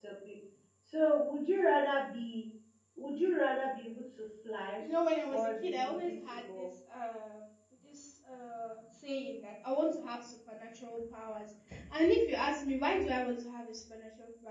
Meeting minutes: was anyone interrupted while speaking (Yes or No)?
Yes